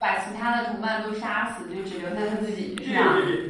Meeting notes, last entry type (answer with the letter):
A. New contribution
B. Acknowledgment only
A